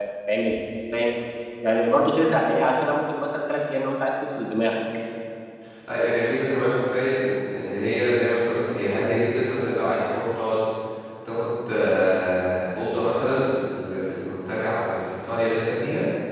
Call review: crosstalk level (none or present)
none